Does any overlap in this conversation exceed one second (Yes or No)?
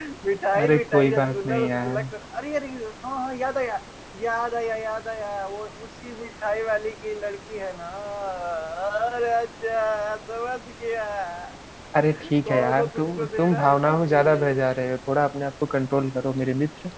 Yes